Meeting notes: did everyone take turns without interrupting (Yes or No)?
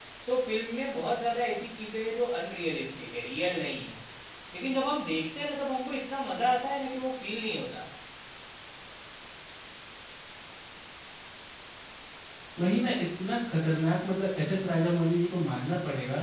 Yes